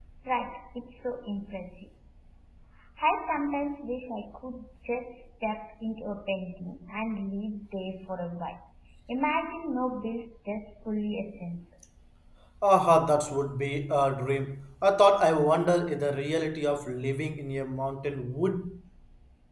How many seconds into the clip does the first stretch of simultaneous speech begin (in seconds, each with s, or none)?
none